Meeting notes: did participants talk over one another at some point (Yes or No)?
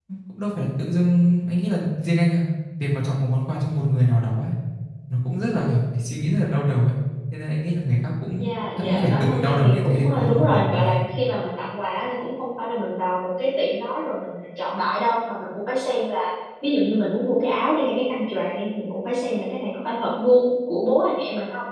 Yes